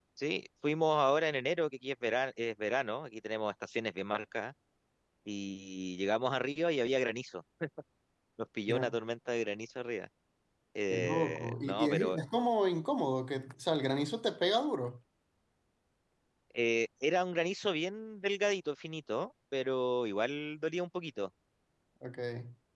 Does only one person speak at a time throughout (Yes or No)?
No